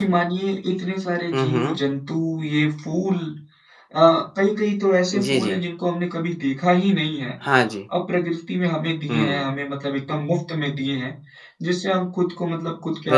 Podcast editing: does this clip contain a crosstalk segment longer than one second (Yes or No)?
No